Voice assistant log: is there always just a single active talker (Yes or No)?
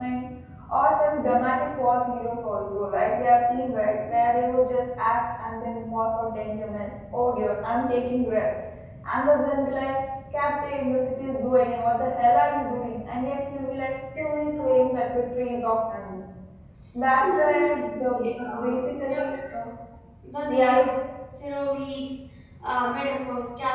No